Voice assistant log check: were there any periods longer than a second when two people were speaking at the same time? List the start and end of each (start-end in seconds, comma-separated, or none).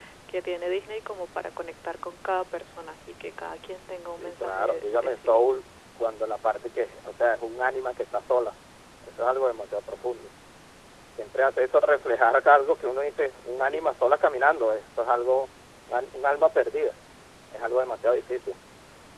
4.2-5.6